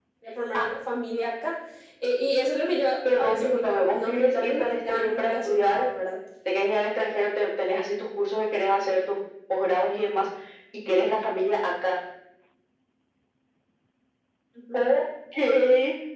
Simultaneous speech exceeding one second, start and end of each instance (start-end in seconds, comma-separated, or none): 3.2-5.8